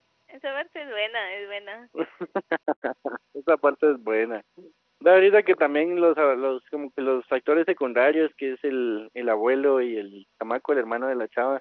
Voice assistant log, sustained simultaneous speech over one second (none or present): none